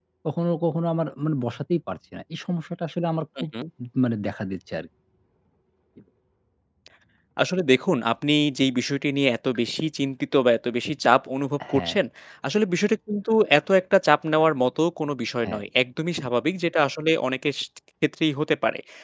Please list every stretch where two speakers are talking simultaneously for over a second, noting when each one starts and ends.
none

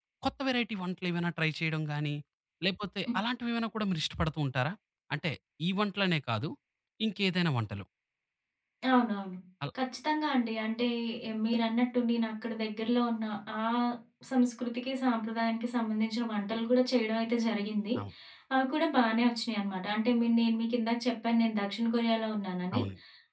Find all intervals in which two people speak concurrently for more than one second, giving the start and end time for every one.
none

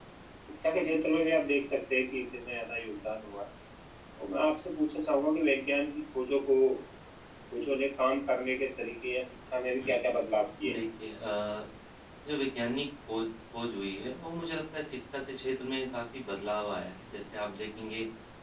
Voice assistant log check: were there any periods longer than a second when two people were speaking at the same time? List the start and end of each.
none

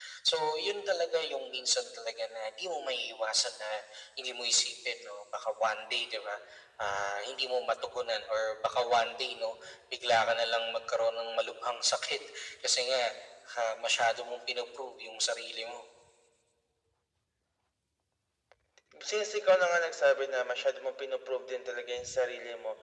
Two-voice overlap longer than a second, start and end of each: none

